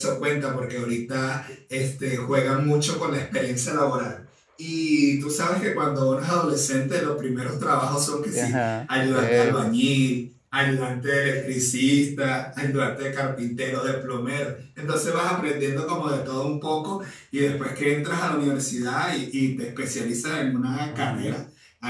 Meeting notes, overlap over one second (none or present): present